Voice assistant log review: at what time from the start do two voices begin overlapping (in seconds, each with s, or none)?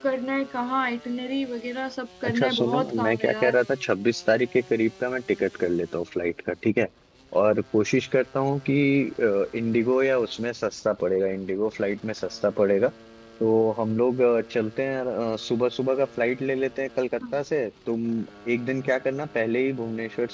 2.2 s